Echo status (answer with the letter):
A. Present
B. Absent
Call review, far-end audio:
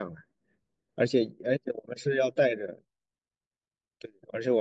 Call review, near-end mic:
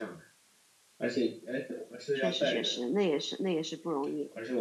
A